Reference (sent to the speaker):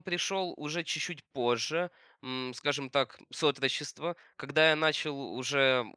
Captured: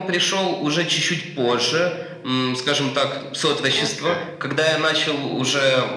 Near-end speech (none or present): present